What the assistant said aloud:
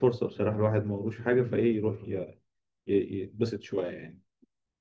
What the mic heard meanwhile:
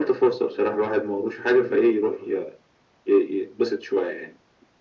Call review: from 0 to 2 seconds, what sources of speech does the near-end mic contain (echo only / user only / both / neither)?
echo only